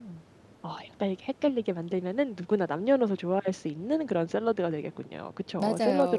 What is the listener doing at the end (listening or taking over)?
taking over